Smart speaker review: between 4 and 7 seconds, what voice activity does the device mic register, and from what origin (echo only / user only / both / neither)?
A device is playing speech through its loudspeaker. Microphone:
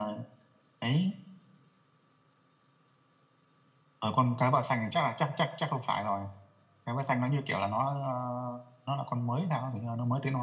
user only